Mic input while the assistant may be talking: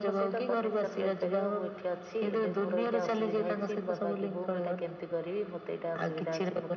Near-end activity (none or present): present